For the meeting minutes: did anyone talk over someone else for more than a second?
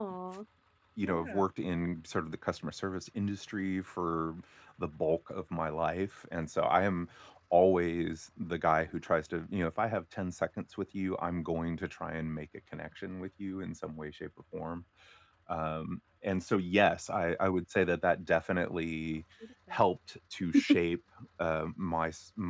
No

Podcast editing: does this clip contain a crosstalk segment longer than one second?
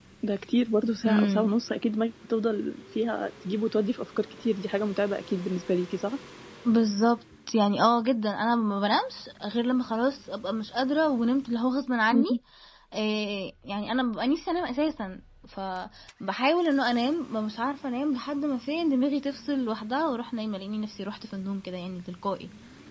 No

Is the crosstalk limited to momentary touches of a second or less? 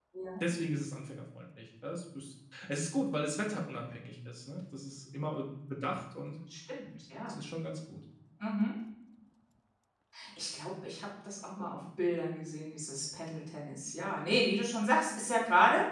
Yes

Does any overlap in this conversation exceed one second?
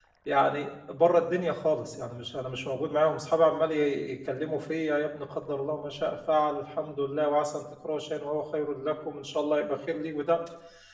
No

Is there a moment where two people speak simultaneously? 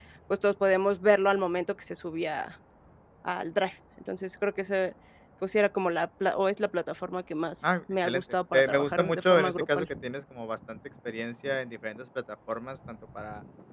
Yes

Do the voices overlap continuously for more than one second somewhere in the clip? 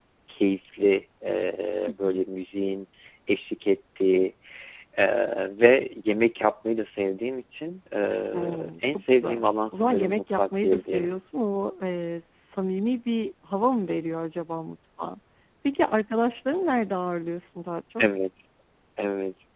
Yes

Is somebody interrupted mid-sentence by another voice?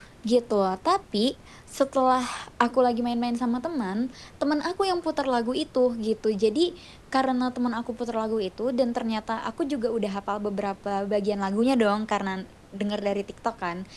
No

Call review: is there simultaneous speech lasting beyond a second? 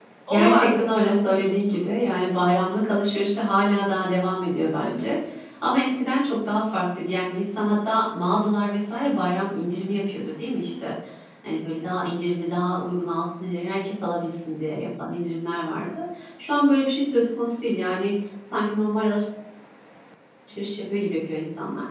Yes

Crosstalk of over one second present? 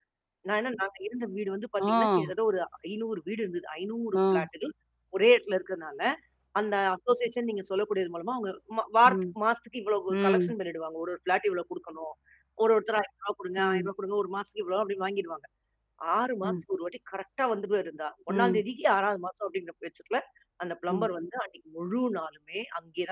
No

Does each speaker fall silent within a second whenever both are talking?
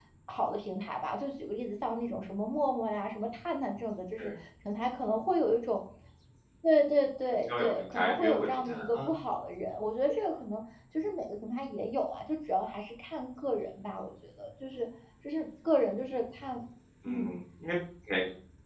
No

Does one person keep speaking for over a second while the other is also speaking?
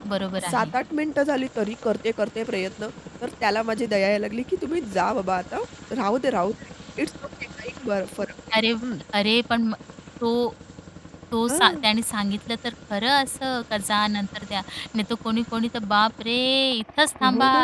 No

